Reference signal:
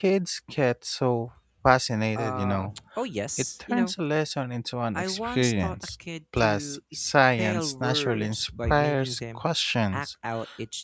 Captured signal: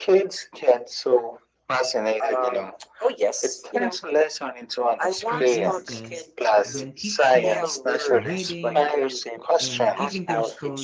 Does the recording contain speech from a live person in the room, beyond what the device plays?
Yes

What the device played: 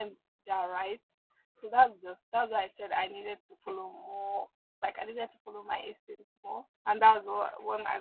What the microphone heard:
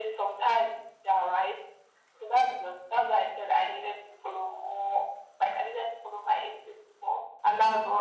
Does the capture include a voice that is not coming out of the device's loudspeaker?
No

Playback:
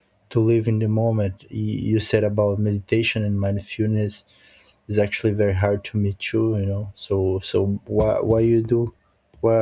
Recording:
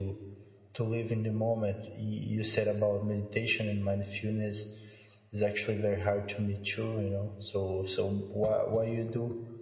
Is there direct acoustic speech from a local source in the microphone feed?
No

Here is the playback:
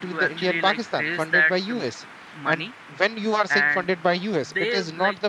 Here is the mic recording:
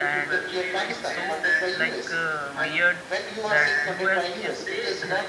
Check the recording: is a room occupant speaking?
Yes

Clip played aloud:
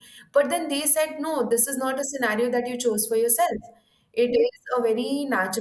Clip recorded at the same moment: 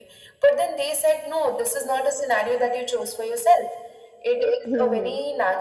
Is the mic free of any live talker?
No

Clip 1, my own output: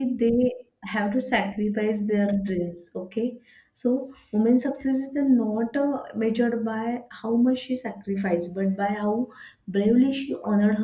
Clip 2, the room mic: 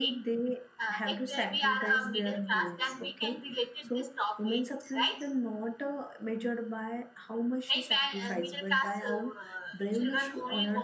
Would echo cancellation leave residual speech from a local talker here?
Yes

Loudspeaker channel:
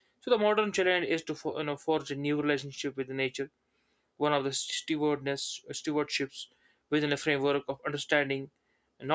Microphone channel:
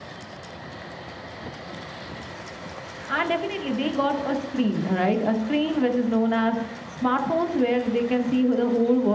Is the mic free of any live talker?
No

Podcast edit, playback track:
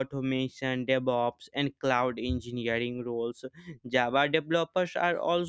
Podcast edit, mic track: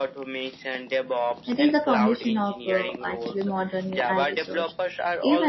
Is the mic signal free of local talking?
No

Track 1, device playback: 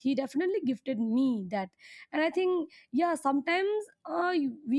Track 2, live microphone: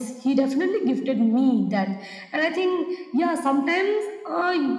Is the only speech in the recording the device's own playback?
Yes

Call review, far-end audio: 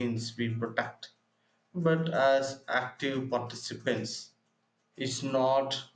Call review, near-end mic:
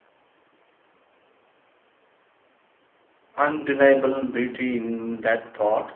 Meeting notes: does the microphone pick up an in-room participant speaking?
Yes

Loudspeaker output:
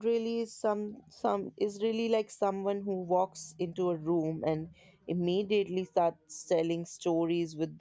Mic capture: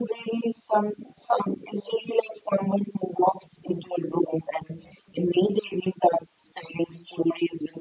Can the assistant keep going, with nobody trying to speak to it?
Yes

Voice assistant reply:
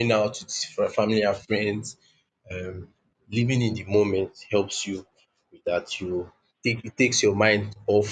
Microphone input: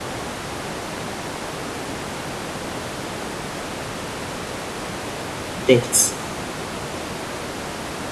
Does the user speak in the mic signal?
Yes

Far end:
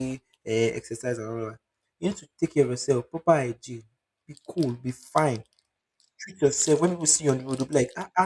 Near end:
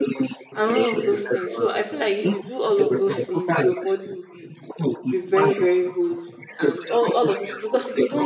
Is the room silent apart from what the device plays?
No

